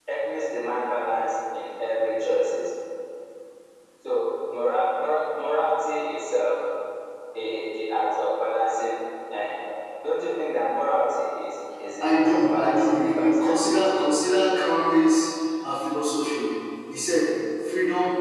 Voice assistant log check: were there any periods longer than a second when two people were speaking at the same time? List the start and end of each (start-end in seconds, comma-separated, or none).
12.0-14.1